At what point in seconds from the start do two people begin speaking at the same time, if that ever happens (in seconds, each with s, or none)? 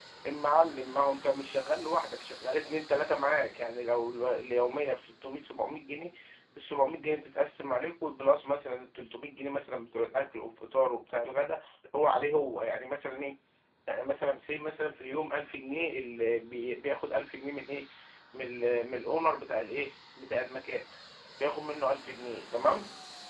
none